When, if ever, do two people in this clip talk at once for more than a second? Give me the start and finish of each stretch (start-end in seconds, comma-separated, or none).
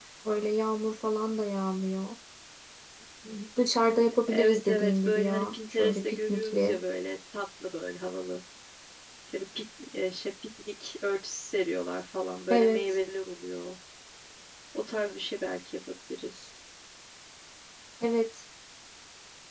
4.3-6.8